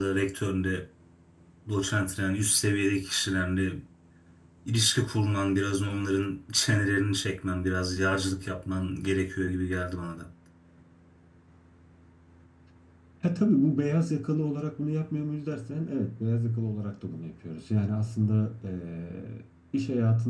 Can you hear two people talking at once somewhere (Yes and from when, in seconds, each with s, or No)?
No